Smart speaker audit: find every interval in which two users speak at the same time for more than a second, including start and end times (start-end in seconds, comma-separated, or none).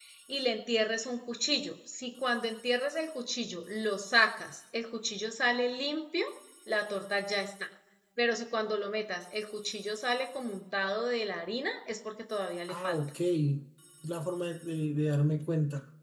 none